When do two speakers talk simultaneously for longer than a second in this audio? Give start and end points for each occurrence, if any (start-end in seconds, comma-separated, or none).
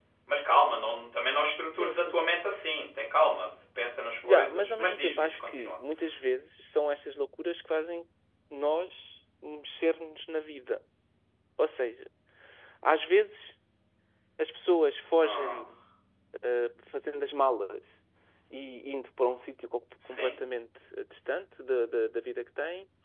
4.2-5.8